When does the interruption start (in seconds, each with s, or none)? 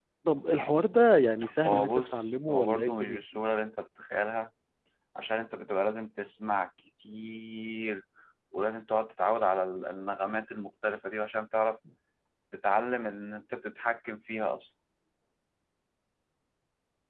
1.4 s